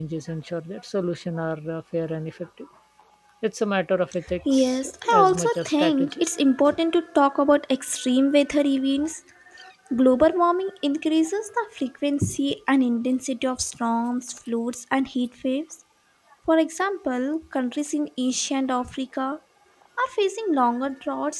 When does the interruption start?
4.3 s

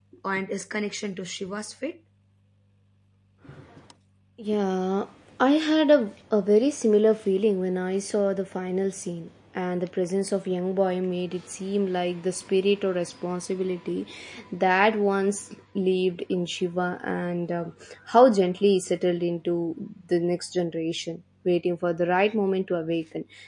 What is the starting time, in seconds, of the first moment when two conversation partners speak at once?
none

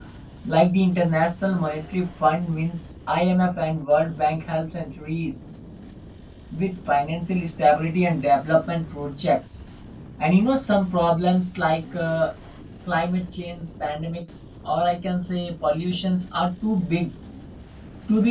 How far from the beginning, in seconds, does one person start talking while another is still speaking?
none

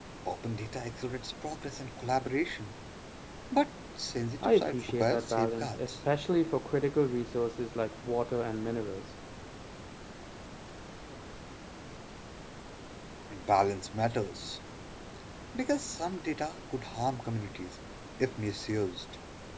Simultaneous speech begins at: 4.4 s

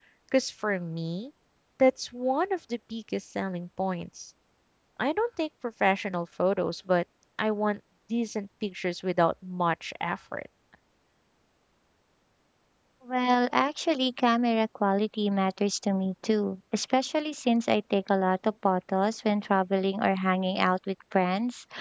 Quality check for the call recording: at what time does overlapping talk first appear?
none

